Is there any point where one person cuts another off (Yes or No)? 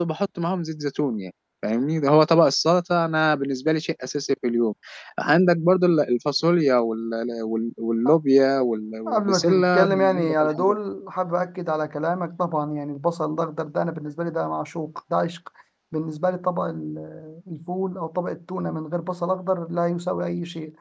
Yes